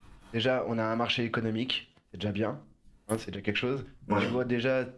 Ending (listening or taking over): listening